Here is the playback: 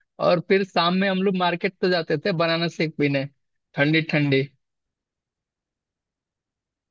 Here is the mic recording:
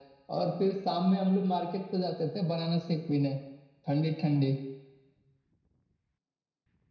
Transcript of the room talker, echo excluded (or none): none